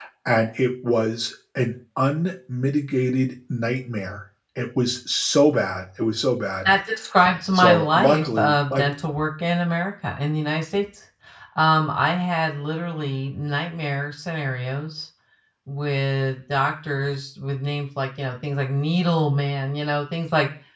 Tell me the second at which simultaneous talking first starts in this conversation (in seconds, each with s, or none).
7.5 s